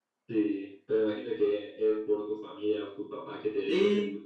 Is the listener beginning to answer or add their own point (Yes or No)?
Yes